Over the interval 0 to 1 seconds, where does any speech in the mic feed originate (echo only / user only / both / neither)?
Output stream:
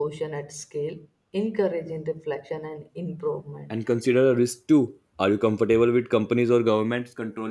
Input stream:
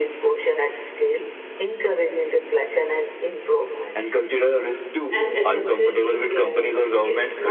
echo only